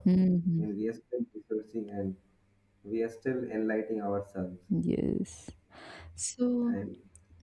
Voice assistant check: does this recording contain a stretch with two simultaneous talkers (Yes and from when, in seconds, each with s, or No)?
No